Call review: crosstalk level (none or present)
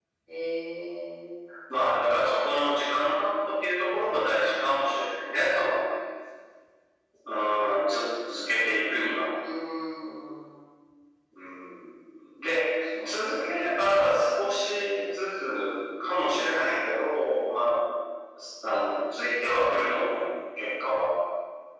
present